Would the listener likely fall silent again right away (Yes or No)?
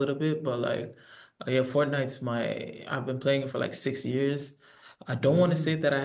Yes